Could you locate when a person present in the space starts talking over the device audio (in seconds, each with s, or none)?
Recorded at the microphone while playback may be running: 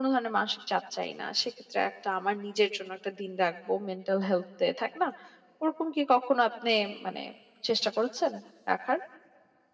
none